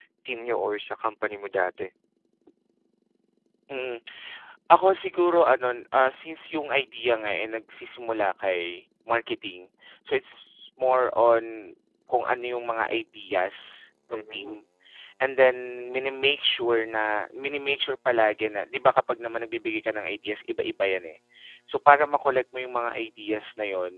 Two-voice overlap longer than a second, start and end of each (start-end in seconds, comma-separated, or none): none